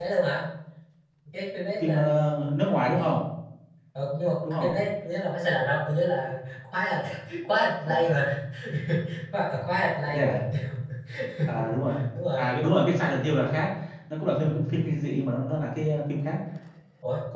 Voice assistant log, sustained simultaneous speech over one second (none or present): none